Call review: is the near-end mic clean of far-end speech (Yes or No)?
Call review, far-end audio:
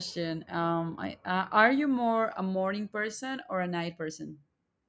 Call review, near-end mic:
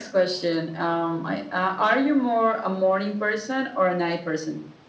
No